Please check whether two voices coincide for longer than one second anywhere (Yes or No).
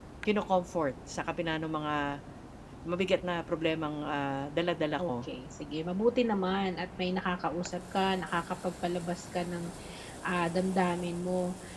No